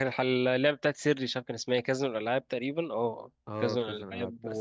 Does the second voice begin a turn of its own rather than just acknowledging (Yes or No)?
Yes